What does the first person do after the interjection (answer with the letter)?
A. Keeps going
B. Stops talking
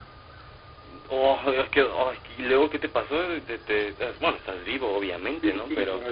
B